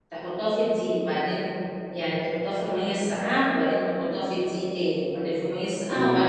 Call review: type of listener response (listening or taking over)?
taking over